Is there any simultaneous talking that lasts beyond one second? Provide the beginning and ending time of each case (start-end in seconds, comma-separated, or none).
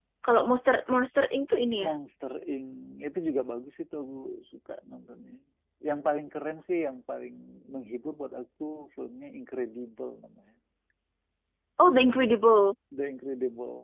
none